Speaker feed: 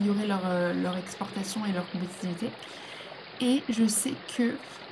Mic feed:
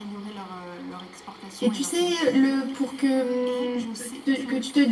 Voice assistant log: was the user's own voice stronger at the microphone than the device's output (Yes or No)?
Yes